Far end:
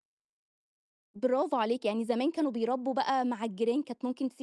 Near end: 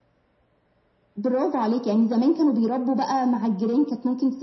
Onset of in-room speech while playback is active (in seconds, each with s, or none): none